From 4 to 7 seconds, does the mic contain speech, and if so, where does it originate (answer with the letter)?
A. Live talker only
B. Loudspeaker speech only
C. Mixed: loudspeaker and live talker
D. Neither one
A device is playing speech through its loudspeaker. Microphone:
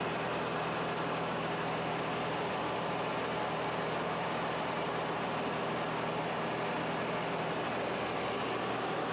D